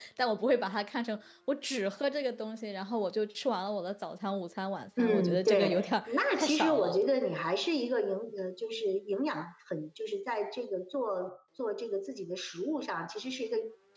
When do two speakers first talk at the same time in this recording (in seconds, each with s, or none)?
5.0 s